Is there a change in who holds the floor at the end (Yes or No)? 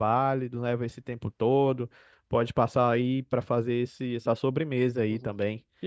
Yes